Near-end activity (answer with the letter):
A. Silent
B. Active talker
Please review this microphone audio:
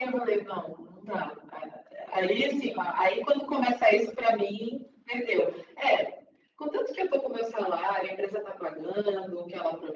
A